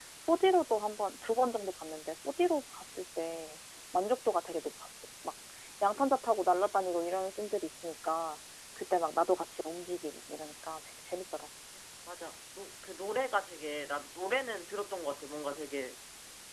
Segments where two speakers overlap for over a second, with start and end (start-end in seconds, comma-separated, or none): none